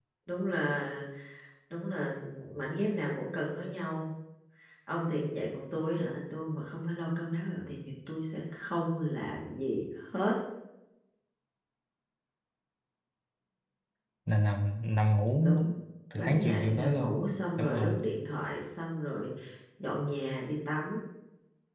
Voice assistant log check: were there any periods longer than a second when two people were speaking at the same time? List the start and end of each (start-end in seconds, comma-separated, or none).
16.2-18.0